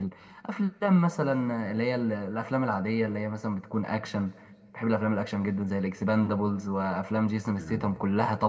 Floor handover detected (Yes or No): No